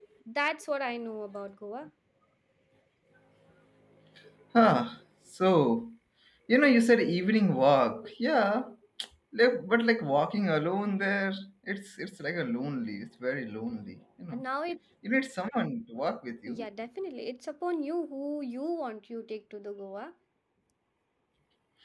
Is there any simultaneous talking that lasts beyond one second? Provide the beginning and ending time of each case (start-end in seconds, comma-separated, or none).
none